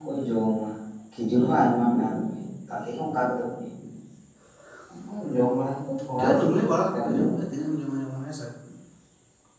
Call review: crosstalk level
present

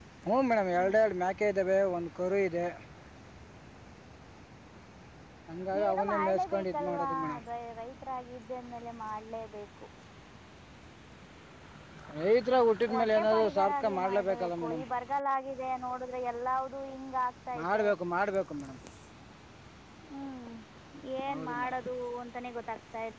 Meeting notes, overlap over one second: present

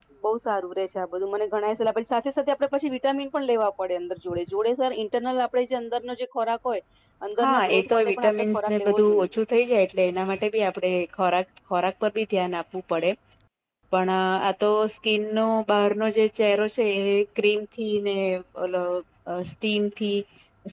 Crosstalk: present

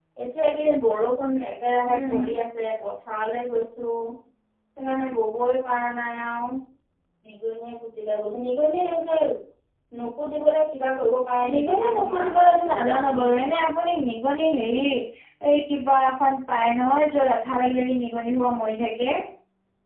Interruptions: present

